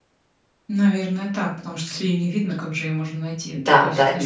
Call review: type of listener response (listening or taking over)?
taking over